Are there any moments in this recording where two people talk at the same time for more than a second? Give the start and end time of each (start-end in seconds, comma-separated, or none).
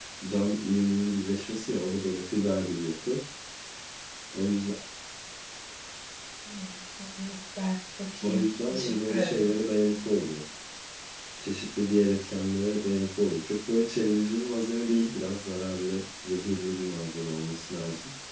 8.2-9.5